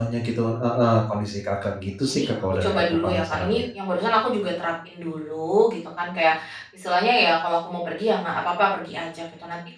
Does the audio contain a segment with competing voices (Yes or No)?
Yes